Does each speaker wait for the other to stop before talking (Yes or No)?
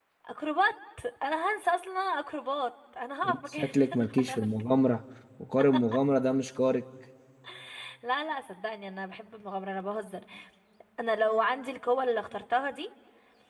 No